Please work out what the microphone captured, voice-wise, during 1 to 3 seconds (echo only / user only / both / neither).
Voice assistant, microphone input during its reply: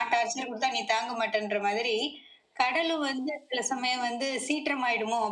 echo only